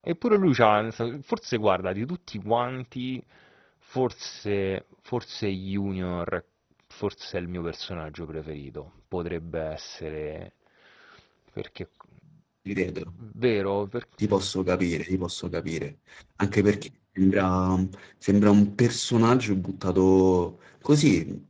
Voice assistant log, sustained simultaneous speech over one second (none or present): none